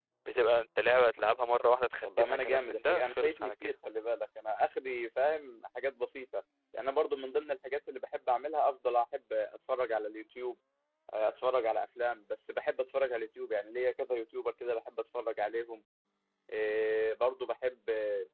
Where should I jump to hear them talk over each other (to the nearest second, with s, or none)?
2 s